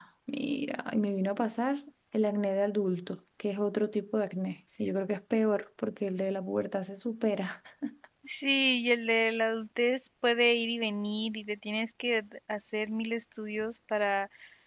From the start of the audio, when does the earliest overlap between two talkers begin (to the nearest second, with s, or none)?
none